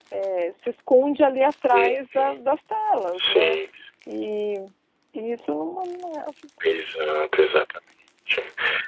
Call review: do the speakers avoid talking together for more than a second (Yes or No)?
Yes